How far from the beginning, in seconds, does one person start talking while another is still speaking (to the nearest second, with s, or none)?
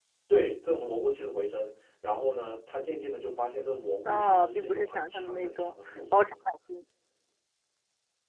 4 s